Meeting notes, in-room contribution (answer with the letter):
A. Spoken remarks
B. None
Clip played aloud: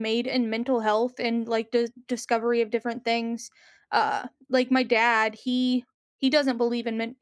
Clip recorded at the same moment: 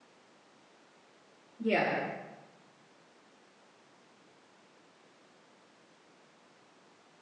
A